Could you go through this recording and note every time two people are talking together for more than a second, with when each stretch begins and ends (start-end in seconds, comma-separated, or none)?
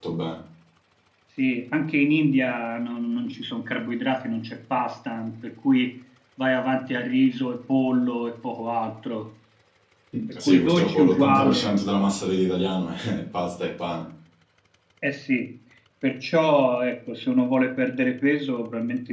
10.4-11.8